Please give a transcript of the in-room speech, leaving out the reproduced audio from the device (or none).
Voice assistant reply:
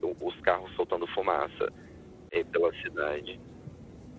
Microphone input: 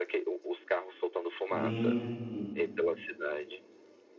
Hum.